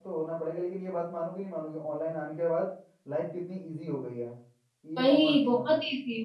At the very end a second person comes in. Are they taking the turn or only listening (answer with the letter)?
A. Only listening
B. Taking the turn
B